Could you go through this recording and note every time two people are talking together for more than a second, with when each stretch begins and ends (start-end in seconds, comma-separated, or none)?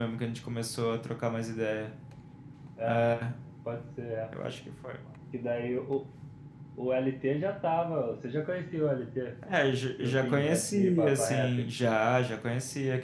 10.0-11.7